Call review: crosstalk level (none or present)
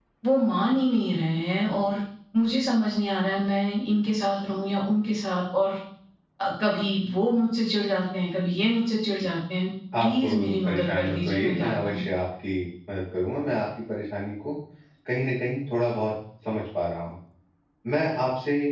present